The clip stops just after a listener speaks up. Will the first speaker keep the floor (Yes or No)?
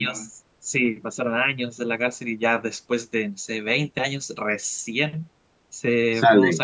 Yes